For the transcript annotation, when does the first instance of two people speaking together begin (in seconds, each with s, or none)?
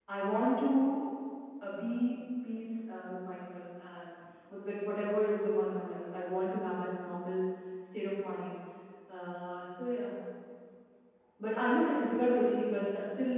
none